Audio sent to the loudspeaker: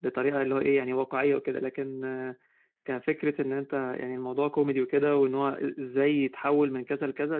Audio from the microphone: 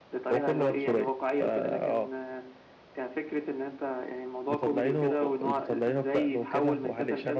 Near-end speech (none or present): present